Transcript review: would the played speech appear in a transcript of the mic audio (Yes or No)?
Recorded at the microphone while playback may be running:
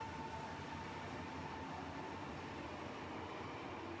No